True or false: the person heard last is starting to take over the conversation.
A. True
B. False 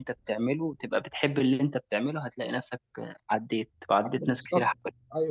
A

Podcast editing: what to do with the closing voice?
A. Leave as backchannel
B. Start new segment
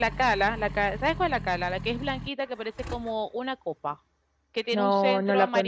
B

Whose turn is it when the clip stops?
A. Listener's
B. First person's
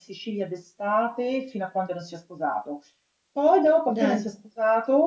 B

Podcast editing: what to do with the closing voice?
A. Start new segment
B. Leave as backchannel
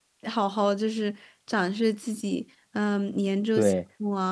B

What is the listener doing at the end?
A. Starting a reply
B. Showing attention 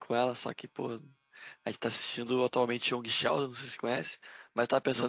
B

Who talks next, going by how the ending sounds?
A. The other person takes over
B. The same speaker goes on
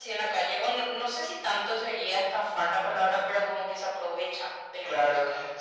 A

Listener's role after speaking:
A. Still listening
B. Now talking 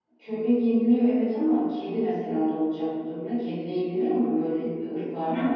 B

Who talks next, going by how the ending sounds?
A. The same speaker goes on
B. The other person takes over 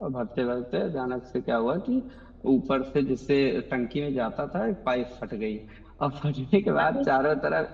A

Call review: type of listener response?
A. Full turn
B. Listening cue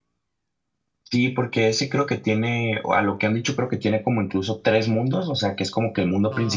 B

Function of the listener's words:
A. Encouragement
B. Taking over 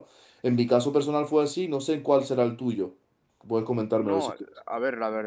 B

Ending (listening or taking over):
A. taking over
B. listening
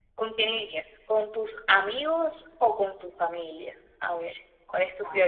A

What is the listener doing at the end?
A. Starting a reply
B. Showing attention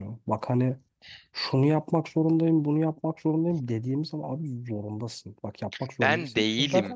B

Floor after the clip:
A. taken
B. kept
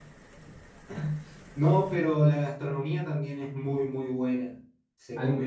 B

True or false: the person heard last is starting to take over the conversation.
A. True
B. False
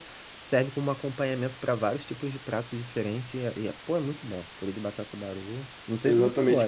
A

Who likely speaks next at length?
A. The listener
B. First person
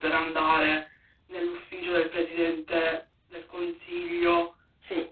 A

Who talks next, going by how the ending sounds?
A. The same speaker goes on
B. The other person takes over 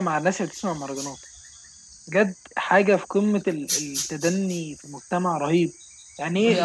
A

